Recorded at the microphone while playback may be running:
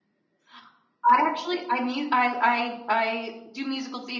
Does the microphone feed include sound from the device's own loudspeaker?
No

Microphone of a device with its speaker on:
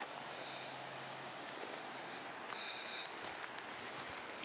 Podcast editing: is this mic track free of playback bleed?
Yes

